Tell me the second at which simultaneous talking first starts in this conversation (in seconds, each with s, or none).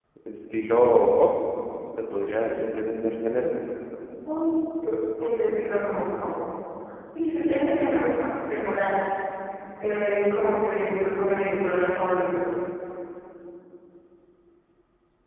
none